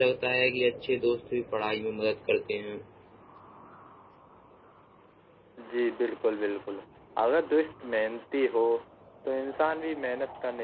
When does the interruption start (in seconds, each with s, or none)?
none